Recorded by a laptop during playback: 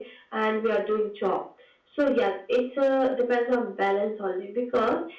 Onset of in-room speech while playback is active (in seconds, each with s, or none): none